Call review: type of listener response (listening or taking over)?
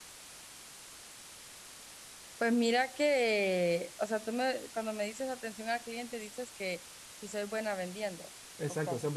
taking over